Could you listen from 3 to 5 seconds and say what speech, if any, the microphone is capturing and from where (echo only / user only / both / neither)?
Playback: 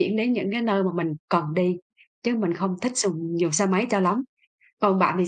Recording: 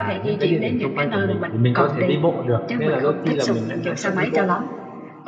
both